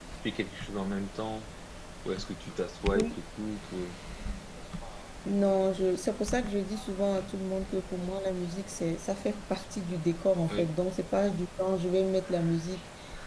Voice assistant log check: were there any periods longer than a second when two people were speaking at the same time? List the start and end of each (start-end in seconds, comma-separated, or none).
none